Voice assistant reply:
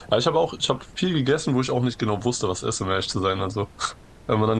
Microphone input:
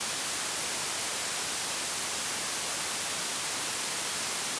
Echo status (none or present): none